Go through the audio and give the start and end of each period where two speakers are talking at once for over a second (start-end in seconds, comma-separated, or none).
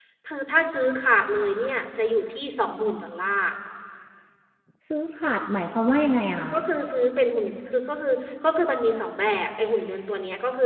none